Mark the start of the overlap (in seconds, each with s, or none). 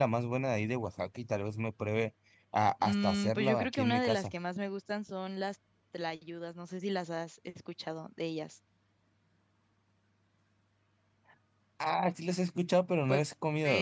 2.8 s